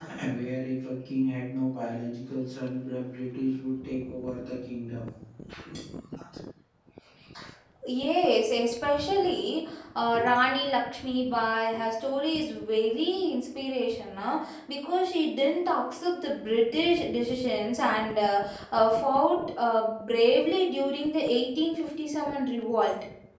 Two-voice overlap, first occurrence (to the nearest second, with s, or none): none